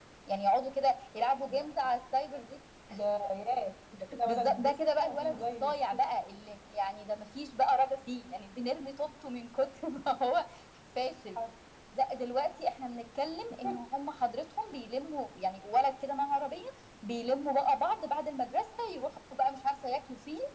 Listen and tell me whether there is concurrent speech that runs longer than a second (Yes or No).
Yes